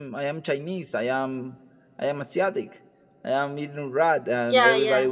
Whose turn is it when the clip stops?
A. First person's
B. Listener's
A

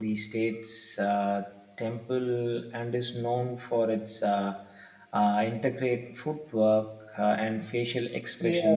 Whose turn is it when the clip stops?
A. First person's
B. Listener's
B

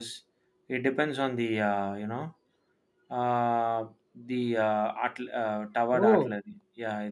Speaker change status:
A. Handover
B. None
B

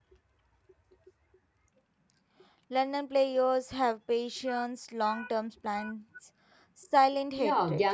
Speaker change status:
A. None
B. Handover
B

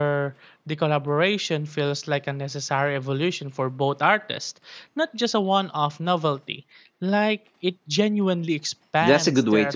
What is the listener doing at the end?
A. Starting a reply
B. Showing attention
A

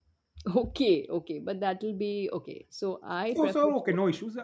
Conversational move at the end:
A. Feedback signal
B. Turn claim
B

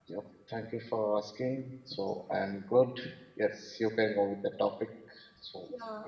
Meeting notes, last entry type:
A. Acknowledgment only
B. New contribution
B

